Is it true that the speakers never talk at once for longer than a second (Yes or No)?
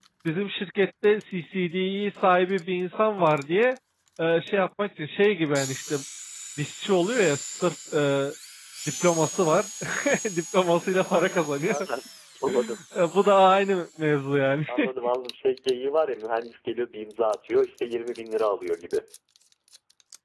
Yes